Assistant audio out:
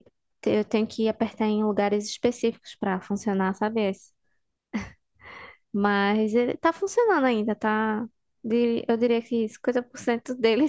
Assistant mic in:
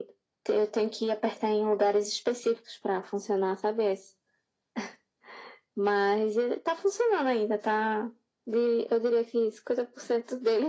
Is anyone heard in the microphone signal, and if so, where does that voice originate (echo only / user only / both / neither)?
echo only